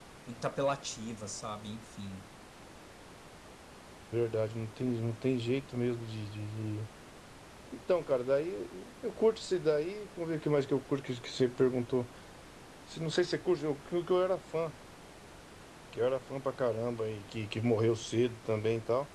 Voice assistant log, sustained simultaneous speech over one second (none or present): none